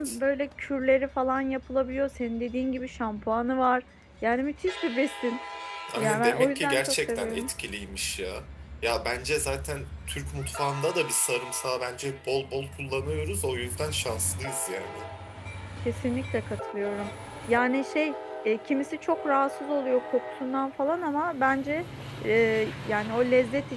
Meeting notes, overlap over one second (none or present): present